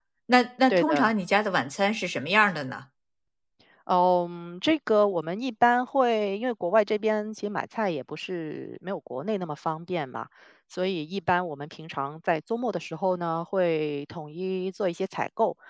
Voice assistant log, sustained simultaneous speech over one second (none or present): none